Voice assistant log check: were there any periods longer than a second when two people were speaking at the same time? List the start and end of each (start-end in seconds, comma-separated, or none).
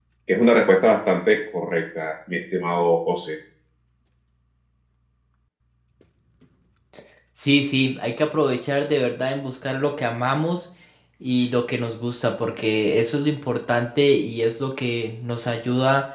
none